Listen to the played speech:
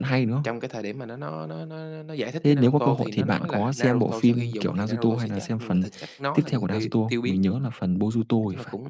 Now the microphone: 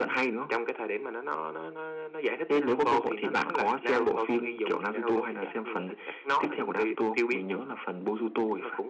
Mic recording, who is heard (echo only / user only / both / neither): echo only